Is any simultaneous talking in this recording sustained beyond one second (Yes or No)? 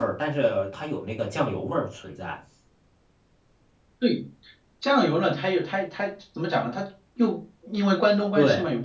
No